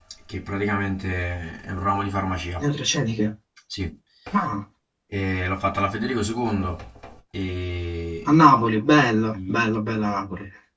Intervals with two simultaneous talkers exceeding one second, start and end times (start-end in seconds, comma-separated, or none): none